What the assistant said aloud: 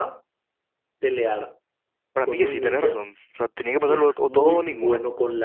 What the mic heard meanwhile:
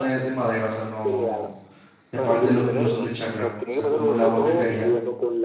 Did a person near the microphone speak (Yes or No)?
Yes